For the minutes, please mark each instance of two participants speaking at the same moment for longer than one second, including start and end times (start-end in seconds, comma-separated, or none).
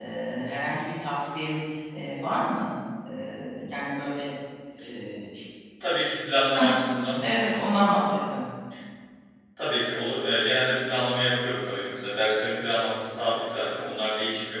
none